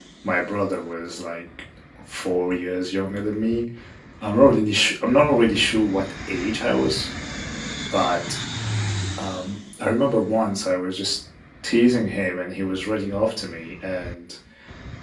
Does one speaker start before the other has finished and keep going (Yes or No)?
No